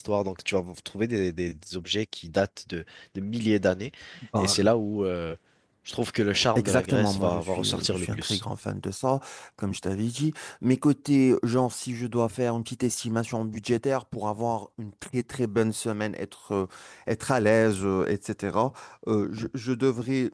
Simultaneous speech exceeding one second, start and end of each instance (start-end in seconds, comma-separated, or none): 6.5-8.4